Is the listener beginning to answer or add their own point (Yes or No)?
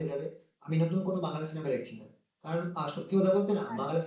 No